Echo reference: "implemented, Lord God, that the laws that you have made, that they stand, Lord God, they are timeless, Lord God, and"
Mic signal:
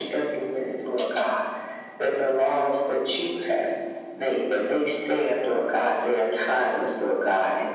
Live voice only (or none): none